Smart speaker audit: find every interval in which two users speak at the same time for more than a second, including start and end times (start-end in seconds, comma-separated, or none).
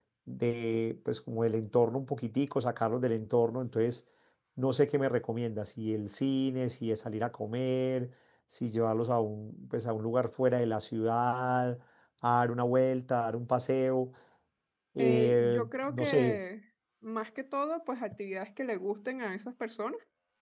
15.0-16.4